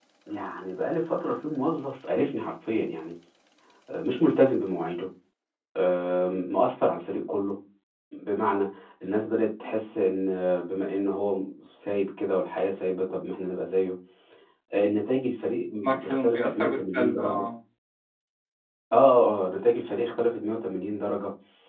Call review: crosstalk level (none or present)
present